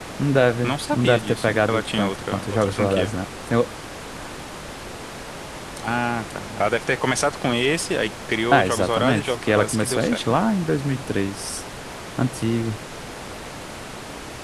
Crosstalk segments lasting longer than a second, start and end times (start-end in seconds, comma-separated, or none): 0.6-3.1, 8.5-10.2